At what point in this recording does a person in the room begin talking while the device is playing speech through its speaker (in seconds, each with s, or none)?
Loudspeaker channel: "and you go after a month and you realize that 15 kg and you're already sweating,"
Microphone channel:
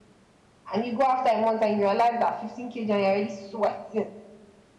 none